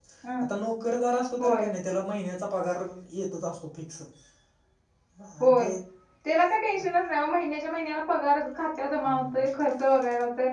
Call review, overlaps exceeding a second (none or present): none